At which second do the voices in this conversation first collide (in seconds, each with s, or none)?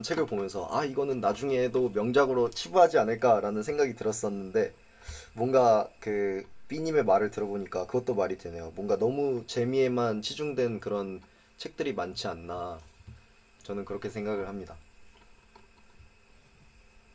none